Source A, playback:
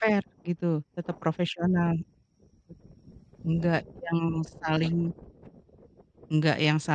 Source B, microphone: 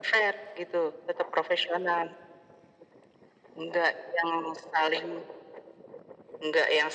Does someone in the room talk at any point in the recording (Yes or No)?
No